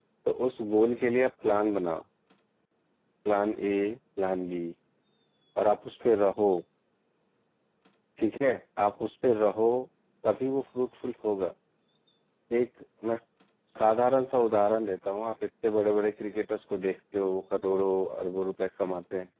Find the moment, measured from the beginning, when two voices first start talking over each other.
none

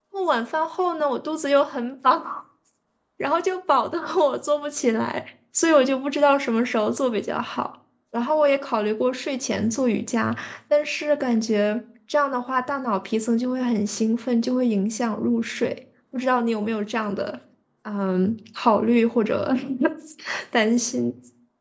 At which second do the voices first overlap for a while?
none

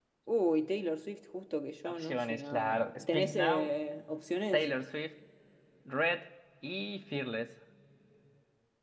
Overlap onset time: 1.8 s

